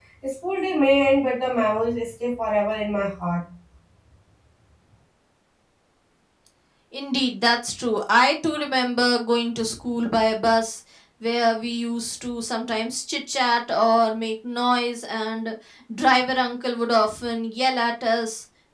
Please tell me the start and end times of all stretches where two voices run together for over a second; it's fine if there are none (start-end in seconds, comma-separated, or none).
none